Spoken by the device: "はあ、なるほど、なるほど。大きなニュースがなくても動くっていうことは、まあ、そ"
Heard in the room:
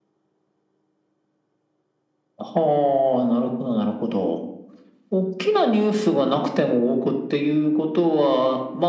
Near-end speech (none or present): none